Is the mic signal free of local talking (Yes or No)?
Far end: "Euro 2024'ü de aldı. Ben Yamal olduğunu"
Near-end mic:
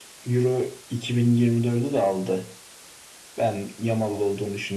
Yes